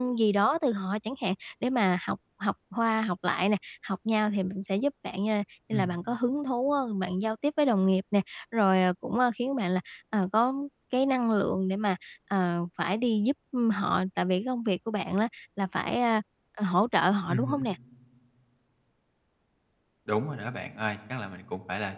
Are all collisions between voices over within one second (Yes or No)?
Yes